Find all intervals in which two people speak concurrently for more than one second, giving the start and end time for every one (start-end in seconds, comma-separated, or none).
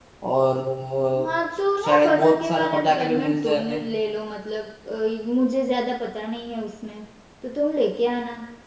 1.8-3.8